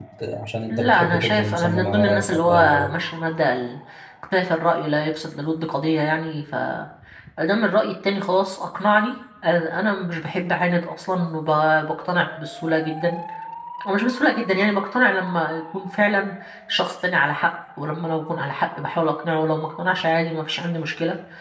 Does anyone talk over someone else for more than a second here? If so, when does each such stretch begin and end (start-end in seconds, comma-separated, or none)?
0.7-2.9